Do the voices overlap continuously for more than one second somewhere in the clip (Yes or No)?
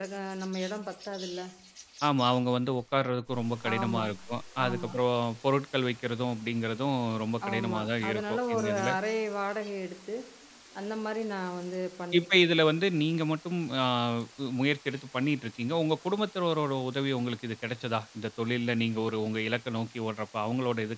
Yes